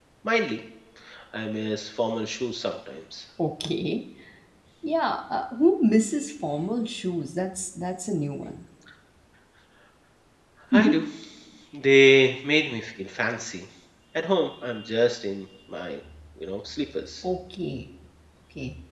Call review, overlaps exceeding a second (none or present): none